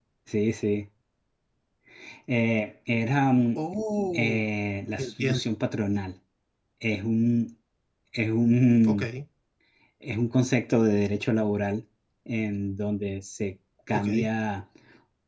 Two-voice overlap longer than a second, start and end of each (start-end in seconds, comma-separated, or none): none